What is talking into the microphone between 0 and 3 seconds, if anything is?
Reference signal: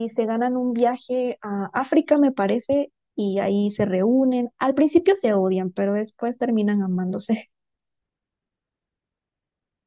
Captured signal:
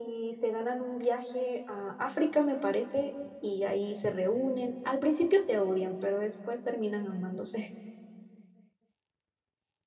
echo only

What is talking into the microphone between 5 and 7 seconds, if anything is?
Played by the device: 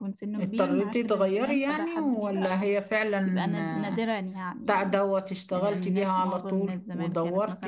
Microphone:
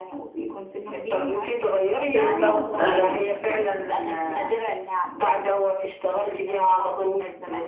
echo only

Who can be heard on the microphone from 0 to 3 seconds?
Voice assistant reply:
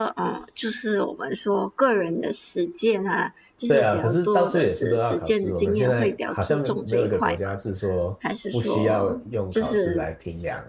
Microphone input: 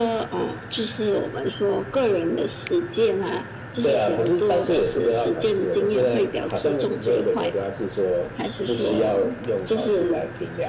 echo only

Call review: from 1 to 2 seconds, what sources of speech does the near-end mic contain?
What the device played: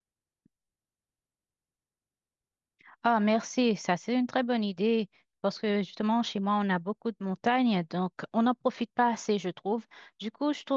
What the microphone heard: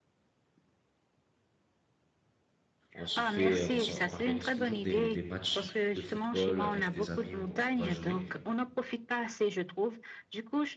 neither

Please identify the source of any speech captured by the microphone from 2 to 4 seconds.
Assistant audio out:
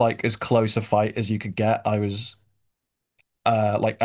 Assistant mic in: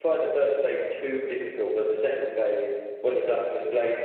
user only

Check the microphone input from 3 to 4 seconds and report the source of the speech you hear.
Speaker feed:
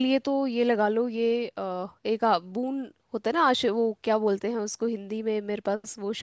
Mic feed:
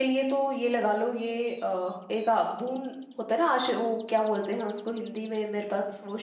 echo only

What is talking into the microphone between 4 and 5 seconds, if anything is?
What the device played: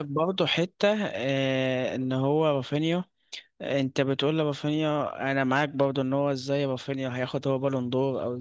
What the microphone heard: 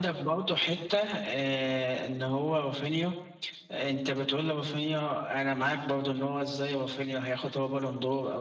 echo only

